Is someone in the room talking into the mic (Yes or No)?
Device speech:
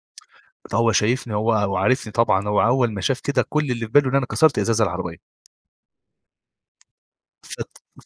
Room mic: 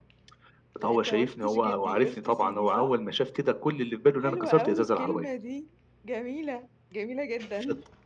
Yes